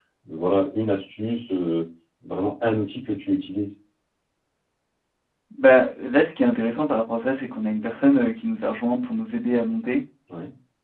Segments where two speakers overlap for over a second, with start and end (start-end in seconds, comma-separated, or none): none